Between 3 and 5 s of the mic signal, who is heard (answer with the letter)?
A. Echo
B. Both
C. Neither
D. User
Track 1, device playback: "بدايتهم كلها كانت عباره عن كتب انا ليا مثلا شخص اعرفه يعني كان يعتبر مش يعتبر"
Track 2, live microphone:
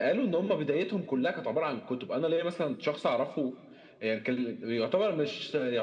A